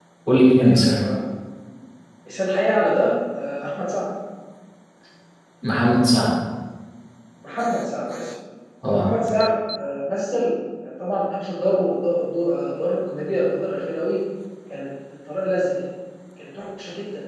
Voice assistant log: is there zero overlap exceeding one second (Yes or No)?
Yes